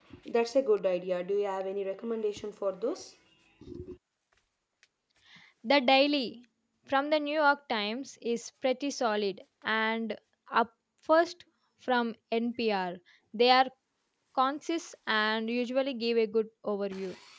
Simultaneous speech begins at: none

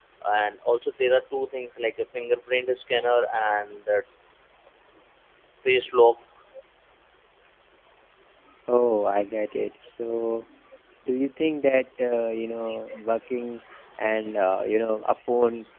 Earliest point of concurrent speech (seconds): none

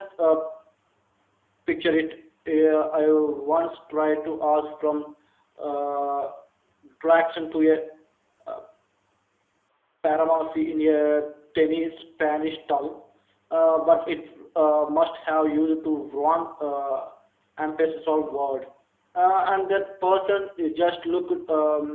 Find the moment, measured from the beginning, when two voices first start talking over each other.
none

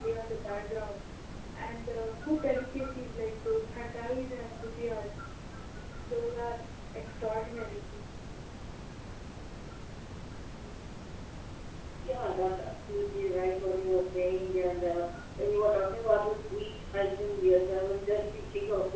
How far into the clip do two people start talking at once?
none

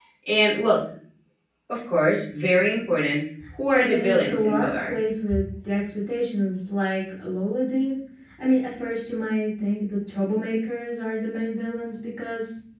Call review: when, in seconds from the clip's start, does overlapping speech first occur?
3.7 s

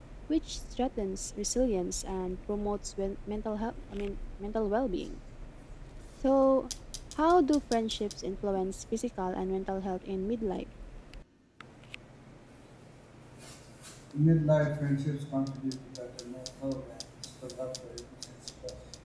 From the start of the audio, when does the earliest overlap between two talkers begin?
none

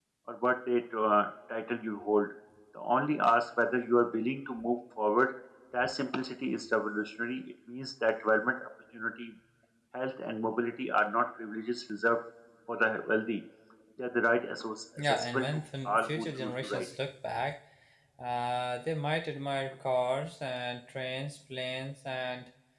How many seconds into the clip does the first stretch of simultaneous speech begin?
15.0 s

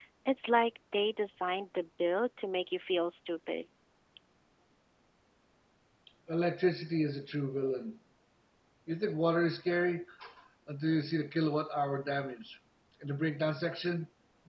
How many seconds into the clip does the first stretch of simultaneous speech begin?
none

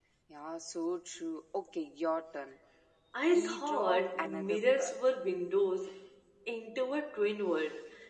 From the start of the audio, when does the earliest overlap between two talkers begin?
3.3 s

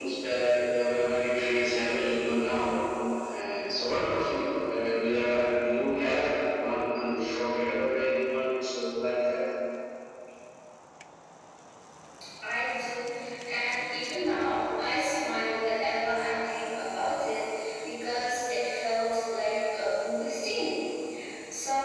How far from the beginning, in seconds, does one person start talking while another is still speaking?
none

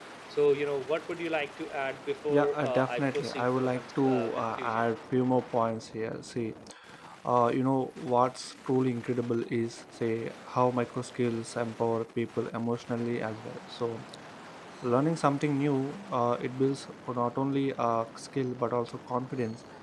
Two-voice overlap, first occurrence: 2.3 s

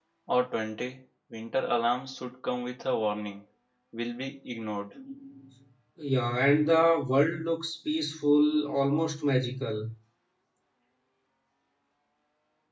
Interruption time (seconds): none

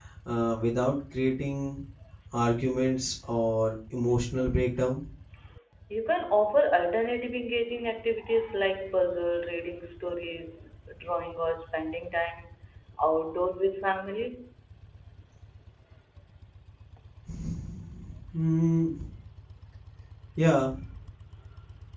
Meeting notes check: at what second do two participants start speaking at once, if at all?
none

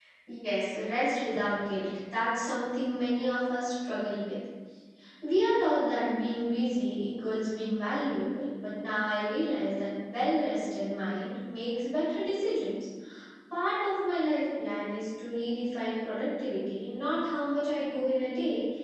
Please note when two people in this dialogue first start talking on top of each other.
none

